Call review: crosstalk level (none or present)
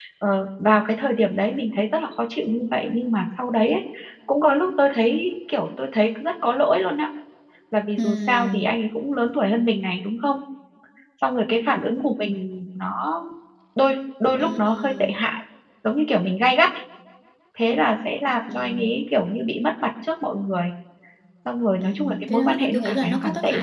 present